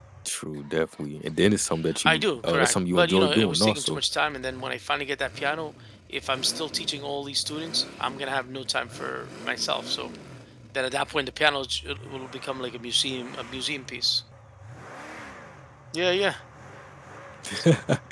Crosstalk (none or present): present